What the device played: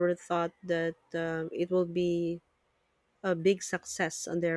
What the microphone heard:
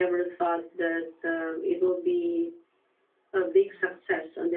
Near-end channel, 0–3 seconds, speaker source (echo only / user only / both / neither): echo only